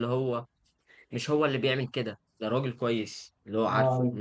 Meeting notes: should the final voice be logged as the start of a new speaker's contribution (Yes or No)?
No